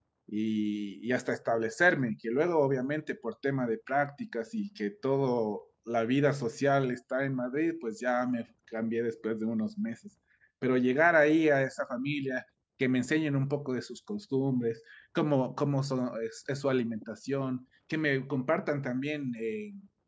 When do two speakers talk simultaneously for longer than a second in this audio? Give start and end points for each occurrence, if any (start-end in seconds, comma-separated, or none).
none